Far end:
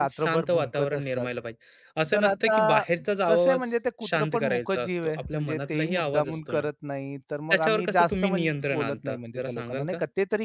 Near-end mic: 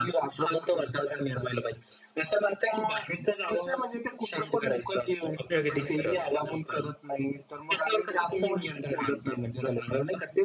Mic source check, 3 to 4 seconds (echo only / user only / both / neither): echo only